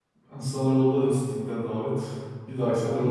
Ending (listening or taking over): taking over